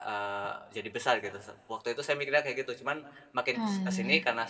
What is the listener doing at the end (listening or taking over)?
listening